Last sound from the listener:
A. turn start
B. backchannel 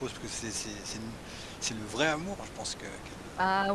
A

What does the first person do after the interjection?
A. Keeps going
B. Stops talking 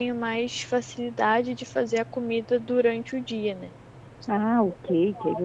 B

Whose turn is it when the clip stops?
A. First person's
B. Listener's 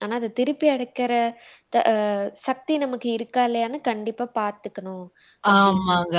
B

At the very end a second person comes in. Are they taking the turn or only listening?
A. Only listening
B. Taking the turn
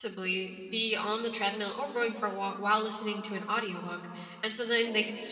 A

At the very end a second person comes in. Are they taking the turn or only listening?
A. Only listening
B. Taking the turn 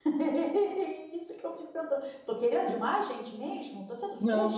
B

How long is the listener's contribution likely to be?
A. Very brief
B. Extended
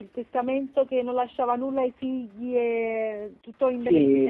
B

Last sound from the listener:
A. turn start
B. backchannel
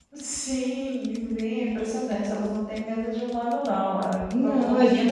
A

